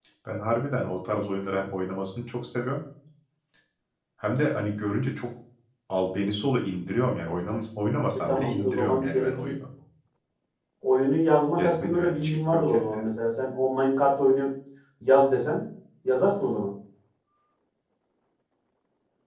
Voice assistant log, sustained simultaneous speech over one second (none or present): present